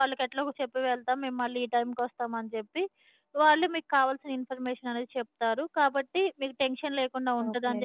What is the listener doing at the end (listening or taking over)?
listening